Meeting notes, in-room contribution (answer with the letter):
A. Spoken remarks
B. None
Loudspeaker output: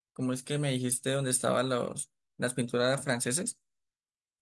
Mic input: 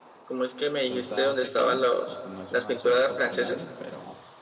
A